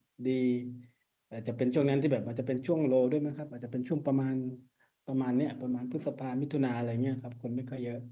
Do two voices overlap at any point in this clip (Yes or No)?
No